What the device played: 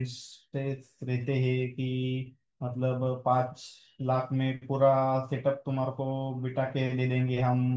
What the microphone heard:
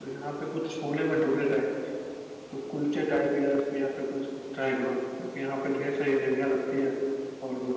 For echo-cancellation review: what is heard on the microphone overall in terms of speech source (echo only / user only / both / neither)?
user only